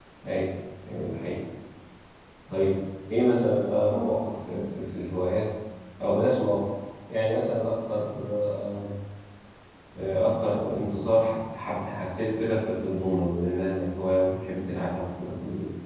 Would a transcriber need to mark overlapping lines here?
No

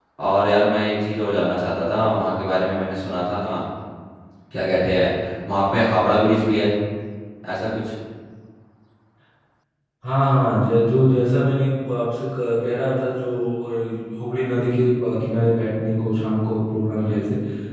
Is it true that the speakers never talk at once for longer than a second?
Yes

